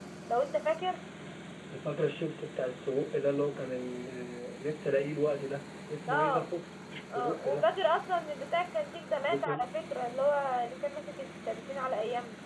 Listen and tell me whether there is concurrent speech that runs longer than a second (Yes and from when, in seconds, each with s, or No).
No